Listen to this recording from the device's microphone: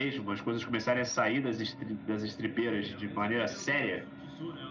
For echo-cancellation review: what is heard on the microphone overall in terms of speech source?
both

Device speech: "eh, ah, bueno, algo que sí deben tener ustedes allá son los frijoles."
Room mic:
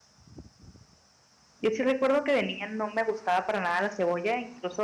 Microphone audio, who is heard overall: user only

